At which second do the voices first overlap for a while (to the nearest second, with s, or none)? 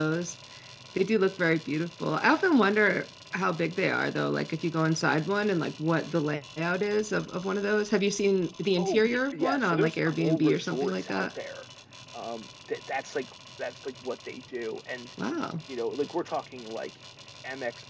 9 s